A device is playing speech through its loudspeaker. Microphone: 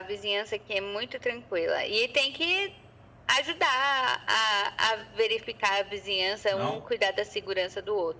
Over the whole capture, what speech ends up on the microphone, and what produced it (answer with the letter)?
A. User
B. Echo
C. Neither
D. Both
D